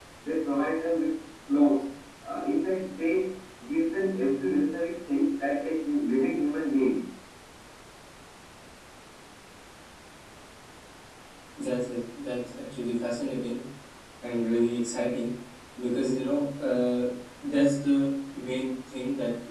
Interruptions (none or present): none